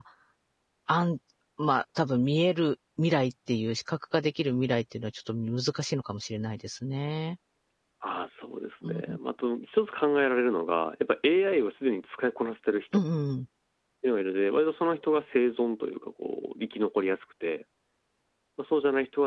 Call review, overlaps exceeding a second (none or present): none